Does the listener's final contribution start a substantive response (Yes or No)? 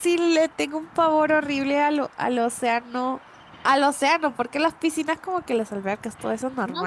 Yes